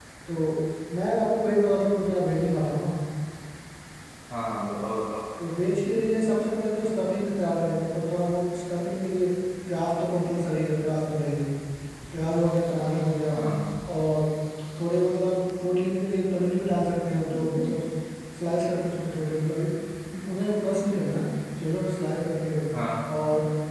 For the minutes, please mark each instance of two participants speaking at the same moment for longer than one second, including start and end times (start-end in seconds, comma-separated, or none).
none